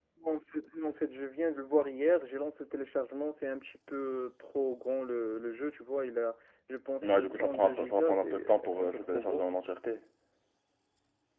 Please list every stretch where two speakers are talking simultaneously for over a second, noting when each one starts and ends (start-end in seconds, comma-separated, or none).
7.0-9.4